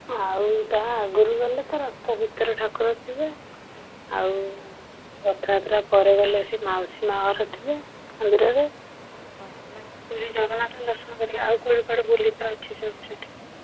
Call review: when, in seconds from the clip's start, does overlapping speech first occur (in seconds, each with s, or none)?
none